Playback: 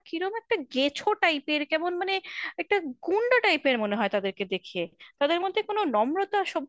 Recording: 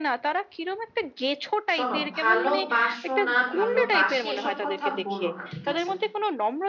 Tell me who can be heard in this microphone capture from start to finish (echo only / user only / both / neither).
both